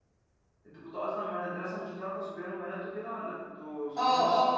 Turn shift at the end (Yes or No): Yes